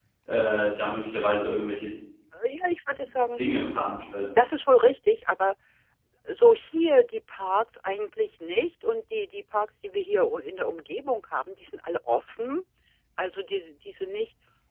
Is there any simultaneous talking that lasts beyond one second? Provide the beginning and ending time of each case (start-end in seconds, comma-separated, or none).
none